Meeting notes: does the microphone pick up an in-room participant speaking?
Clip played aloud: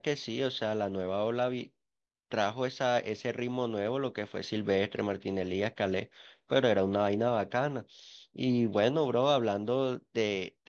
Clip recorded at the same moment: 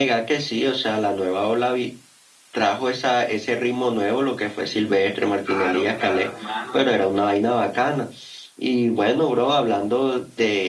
Yes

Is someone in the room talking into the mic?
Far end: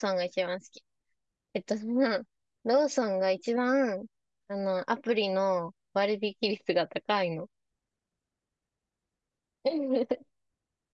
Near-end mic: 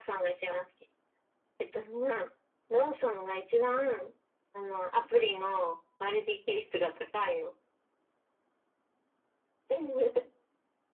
No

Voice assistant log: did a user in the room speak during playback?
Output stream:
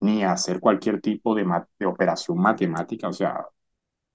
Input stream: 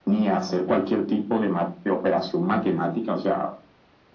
No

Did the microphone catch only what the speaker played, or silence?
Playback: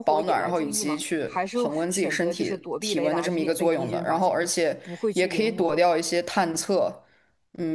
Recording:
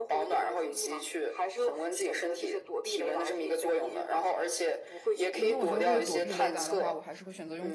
No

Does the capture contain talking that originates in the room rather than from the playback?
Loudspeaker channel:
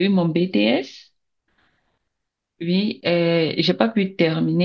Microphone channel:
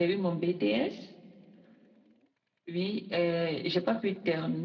No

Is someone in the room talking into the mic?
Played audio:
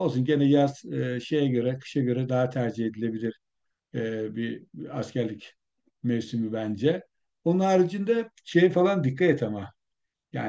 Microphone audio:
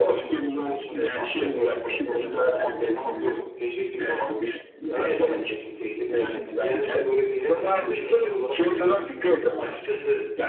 Yes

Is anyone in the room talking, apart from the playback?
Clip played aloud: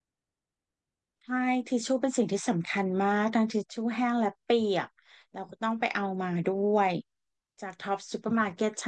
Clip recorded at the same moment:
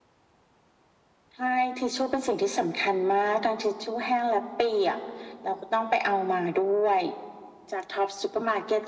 No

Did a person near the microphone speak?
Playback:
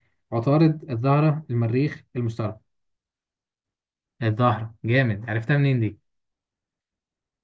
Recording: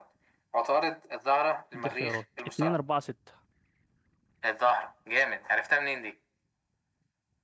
Yes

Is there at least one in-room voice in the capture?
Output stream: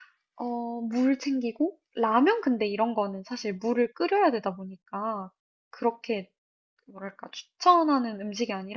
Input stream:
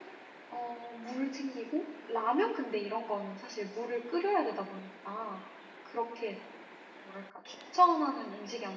No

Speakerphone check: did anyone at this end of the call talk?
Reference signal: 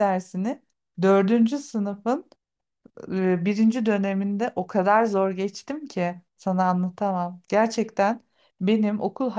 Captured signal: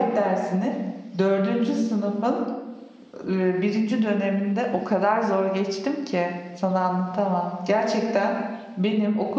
No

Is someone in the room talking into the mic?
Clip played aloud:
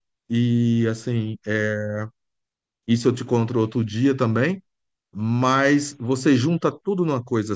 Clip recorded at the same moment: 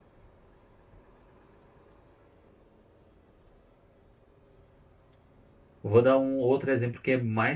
Yes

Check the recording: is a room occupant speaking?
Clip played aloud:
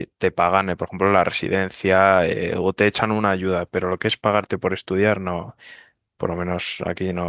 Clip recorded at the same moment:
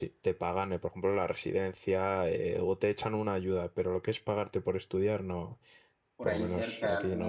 Yes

